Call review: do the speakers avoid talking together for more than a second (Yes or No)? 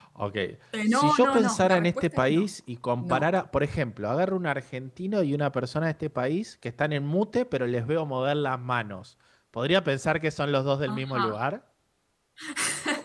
No